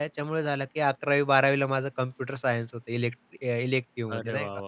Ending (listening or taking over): taking over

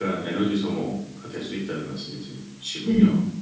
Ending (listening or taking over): taking over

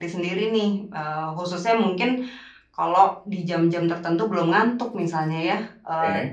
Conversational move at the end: listening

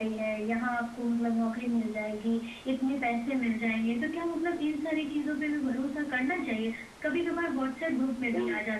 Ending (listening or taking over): listening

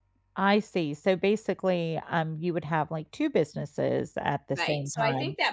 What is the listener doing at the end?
taking over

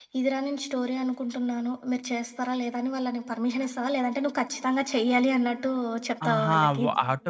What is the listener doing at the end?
taking over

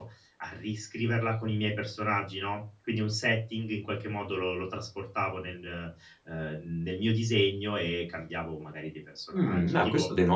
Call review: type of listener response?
taking over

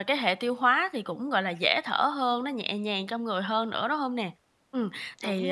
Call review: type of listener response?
listening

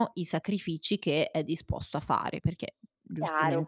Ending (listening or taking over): taking over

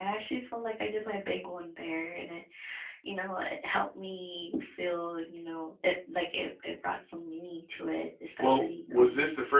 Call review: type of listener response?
taking over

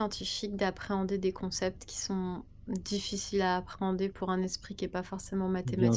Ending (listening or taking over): taking over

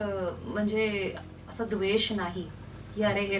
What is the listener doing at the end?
listening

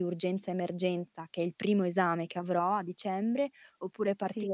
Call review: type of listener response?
listening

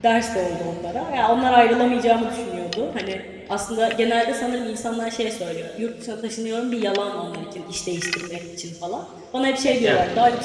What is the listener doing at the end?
listening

